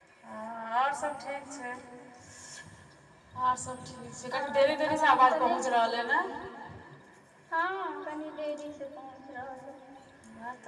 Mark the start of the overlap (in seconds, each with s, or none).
4.3 s